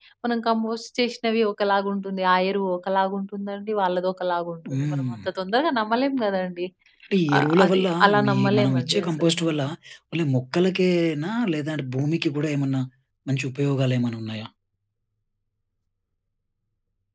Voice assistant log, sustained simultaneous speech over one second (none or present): present